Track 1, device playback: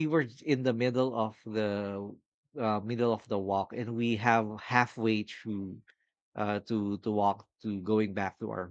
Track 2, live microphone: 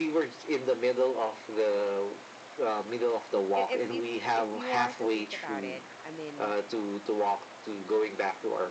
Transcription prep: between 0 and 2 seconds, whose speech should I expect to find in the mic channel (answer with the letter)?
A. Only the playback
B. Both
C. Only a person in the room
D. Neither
A